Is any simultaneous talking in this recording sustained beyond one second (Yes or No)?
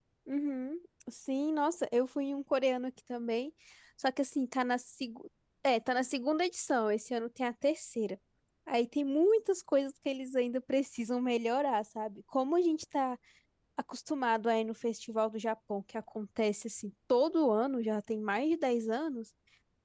No